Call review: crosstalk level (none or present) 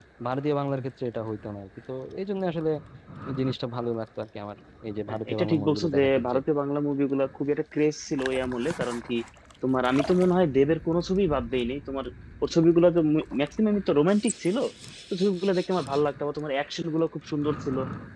present